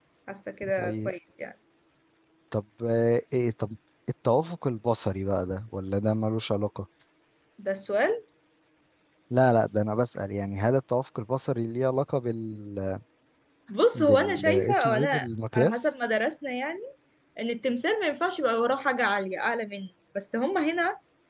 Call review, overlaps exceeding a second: present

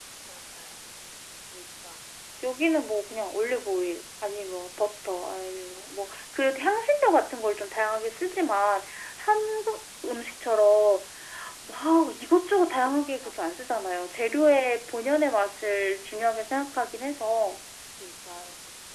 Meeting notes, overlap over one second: none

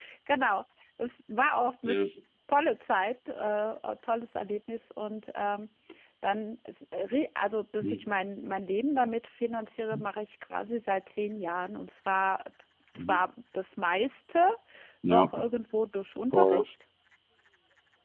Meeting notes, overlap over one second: none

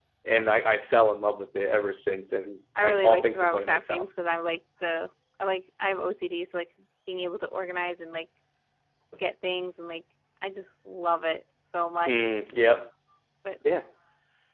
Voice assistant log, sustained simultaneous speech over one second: present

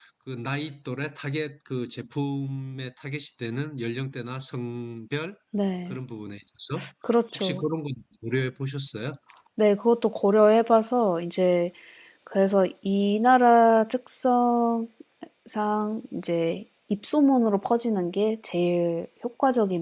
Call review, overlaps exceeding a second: none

